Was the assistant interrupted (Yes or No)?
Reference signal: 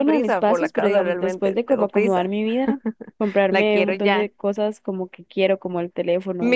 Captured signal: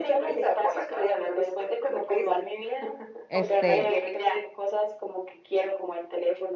Yes